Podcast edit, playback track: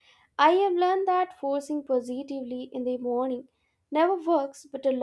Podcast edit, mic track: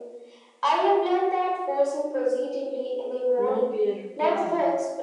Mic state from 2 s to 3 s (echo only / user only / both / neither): echo only